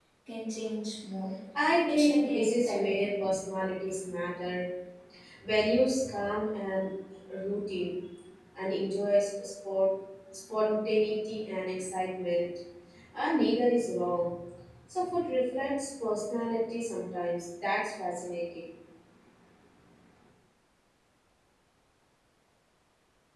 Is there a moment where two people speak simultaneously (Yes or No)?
Yes